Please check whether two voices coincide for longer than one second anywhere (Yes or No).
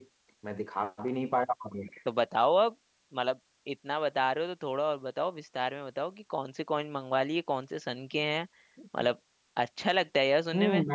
No